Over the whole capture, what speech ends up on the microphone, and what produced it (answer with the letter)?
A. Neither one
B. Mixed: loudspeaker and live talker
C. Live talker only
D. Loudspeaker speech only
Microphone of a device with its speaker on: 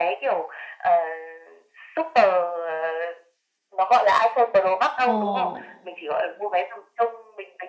B